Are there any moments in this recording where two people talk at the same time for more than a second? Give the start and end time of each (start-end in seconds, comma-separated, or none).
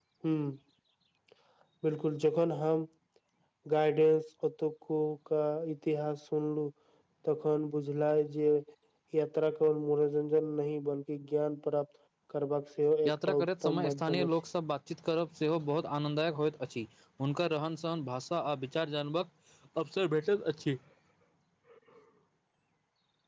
13.1-14.3